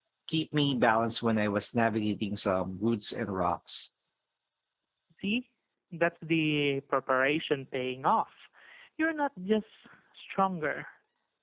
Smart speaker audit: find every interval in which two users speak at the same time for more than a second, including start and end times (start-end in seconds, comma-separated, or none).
none